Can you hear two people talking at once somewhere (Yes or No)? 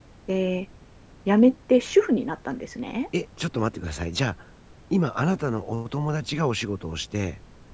No